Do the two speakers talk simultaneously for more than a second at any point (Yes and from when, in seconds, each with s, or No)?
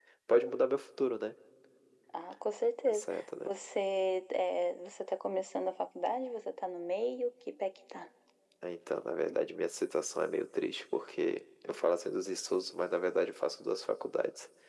No